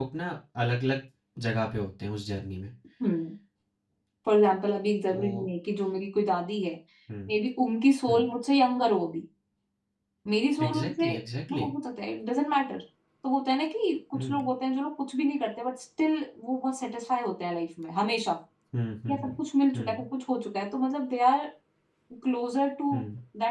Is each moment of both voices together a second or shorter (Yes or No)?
Yes